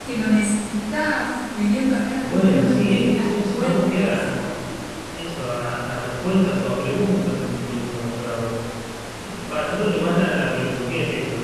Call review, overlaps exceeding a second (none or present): present